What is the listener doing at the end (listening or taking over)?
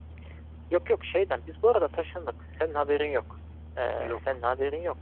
listening